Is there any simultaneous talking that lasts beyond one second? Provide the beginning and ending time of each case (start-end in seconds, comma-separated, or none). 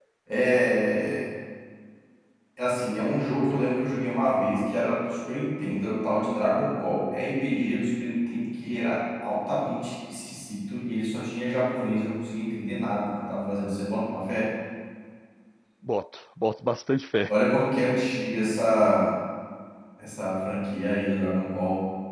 none